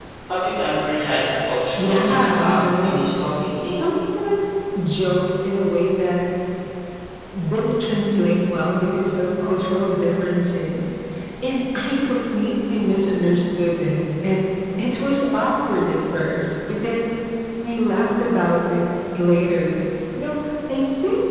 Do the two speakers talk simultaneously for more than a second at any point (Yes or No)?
Yes